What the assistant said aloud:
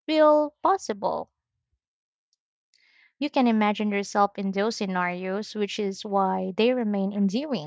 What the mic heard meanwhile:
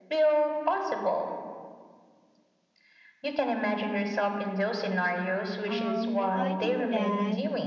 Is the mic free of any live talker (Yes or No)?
No